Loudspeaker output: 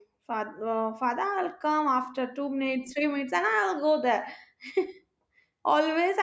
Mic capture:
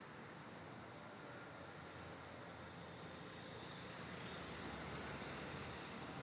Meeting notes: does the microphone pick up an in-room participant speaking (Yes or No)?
No